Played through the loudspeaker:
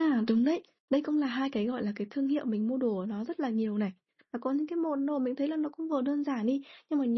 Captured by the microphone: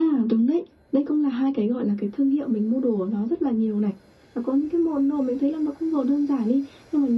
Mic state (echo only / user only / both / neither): echo only